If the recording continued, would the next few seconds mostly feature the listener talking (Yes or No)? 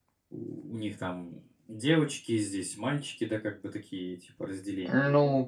Yes